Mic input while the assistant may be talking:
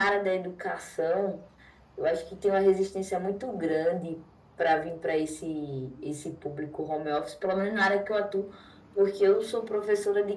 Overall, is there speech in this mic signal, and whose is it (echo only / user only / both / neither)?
echo only